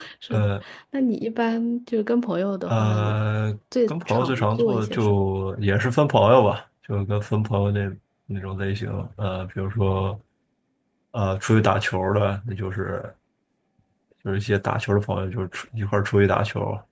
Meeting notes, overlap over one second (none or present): present